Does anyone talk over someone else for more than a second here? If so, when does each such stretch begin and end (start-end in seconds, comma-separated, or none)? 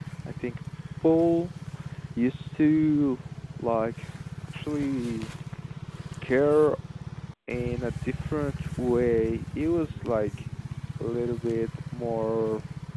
none